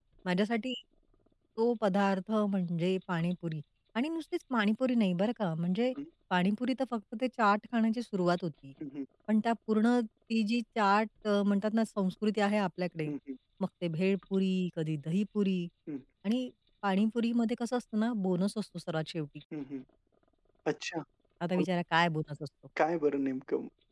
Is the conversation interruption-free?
Yes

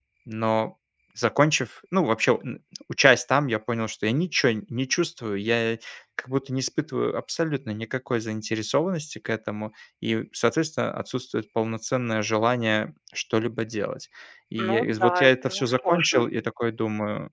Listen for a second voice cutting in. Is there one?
Yes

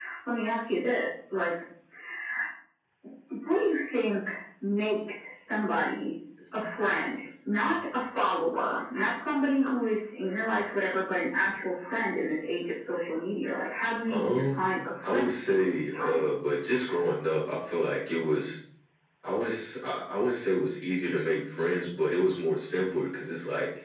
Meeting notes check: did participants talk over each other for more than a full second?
Yes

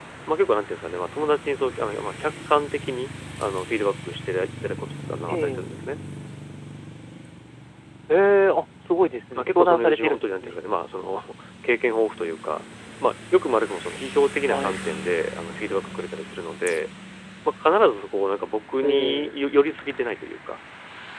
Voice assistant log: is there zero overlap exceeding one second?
No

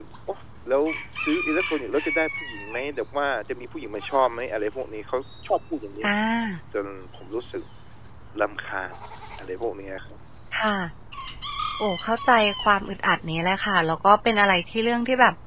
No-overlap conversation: Yes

